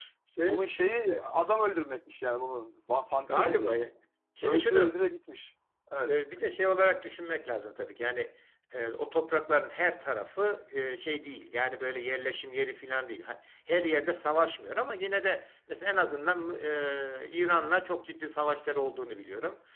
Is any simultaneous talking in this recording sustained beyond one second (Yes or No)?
No